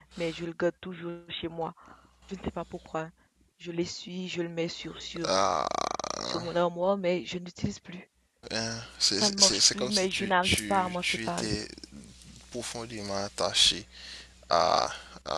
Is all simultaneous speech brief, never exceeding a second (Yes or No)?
No